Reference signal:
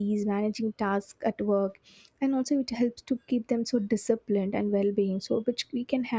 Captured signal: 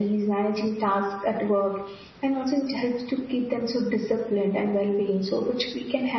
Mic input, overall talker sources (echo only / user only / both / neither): echo only